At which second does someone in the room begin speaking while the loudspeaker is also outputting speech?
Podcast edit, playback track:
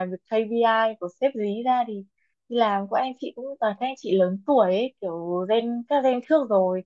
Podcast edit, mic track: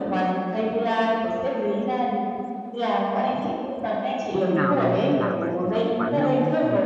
4 s

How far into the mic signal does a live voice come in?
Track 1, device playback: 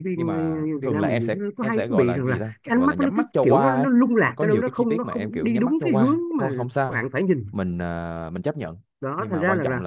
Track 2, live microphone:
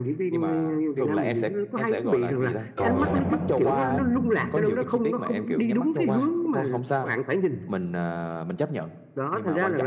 3 s

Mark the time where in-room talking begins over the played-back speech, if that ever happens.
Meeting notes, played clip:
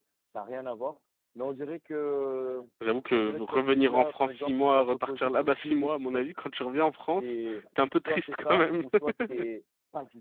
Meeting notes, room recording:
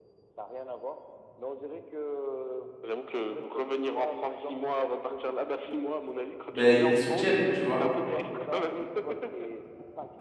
7 s

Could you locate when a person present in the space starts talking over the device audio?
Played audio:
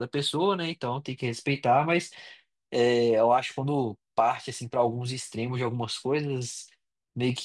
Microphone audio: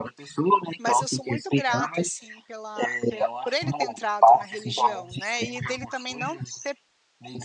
1 s

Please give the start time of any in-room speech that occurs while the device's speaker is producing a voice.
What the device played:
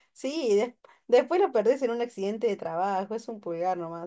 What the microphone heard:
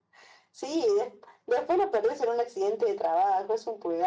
none

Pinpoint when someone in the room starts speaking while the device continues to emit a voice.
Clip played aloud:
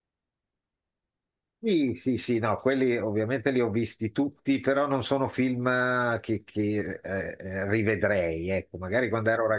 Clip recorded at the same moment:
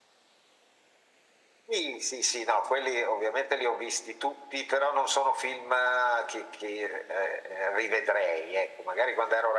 none

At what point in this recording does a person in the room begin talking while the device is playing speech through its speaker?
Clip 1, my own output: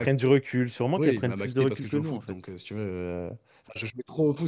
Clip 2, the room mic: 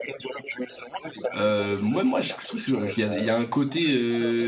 1 s

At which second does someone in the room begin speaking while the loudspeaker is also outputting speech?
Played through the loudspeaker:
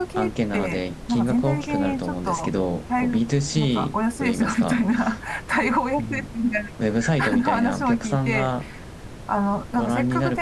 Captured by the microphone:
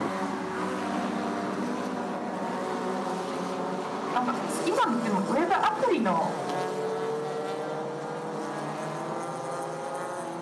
4 s

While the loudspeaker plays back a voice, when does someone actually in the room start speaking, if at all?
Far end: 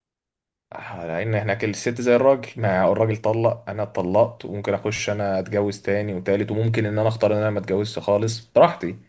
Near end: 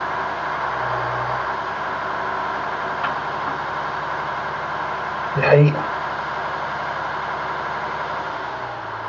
5 s

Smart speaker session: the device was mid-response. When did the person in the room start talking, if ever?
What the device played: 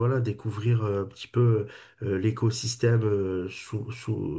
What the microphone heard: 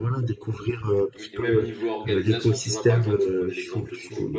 1 s

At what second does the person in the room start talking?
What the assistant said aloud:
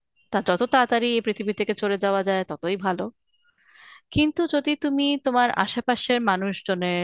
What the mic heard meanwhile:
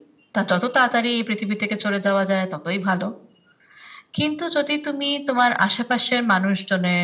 none

